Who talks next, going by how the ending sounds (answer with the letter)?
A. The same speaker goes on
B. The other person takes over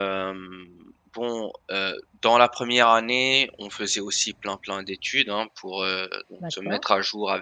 A